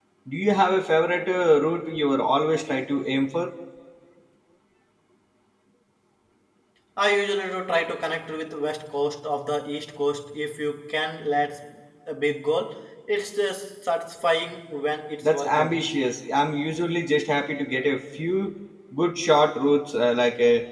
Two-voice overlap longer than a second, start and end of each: none

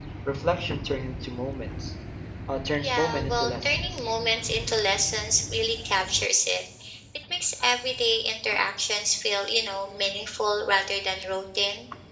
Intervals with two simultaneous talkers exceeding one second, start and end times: 2.8-4.0

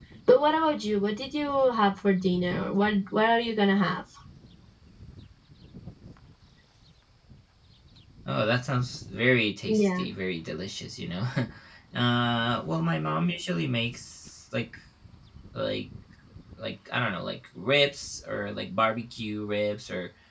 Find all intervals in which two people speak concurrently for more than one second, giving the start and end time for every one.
none

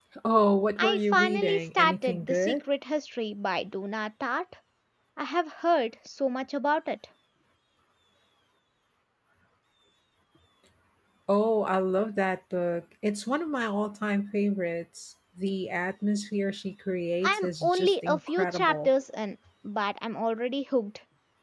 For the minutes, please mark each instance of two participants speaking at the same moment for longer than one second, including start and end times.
0.8-2.5, 17.2-18.9

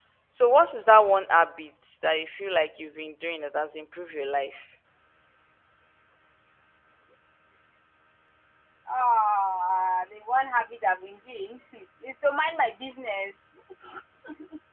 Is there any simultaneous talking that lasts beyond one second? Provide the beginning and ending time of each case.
none

